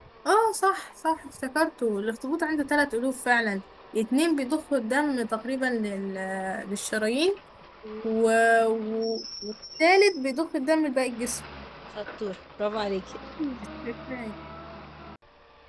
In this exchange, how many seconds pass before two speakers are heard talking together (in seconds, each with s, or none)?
none